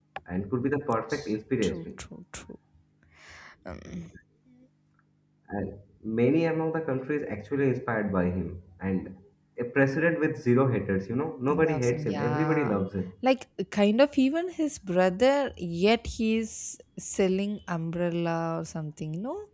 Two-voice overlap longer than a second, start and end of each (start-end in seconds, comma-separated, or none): 11.5-12.8